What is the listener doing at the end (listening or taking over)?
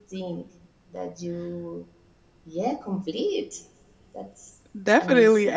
taking over